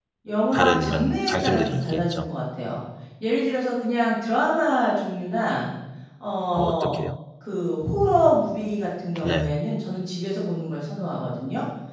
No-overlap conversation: No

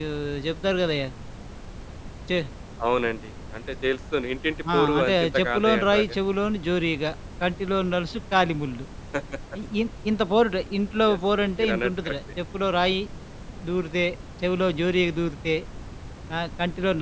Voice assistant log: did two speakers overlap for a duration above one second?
Yes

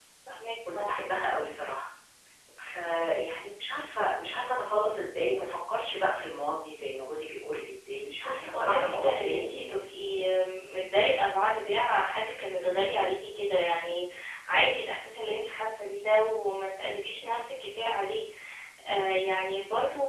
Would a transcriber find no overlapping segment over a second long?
No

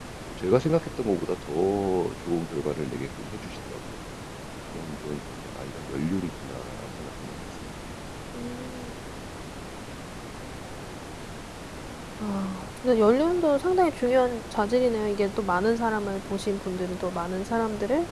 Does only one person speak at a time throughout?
Yes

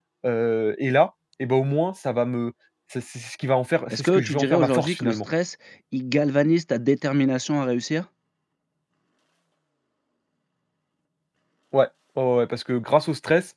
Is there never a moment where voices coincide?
No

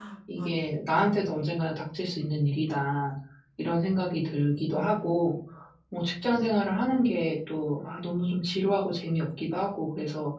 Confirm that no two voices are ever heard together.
No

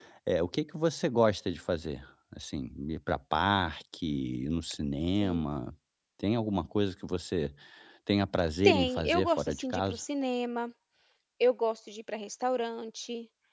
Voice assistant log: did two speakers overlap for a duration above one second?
Yes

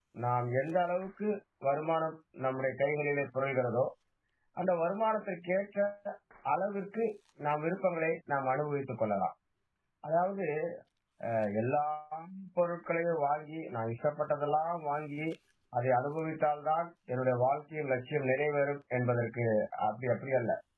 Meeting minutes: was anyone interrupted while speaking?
No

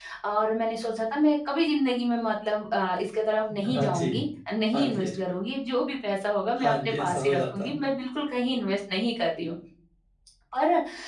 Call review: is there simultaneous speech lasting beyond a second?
Yes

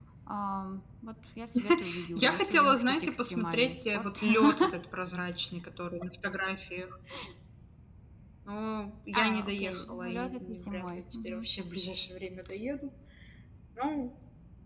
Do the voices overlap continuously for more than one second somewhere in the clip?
Yes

